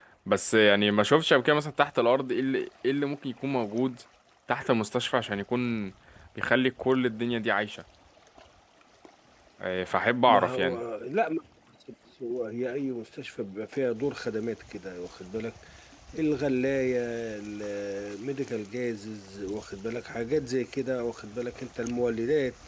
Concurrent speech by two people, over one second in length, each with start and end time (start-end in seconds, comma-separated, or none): none